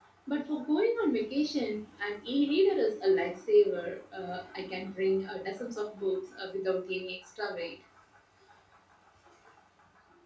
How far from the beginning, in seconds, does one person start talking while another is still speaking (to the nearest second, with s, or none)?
none